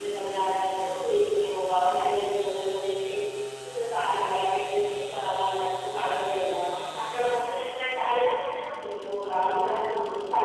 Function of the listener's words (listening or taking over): taking over